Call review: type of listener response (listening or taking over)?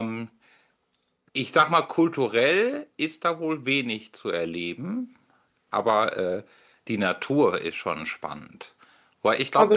taking over